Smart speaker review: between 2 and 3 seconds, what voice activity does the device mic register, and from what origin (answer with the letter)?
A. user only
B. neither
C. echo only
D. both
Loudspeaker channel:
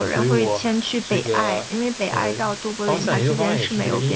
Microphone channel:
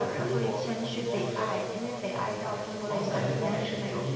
D